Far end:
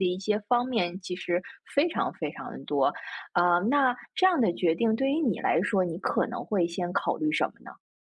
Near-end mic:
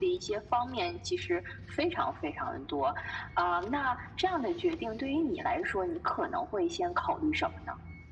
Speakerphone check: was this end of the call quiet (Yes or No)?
Yes